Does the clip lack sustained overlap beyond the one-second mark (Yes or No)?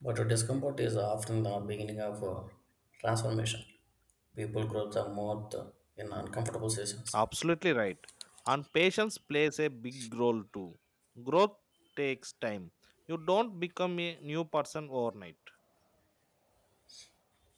Yes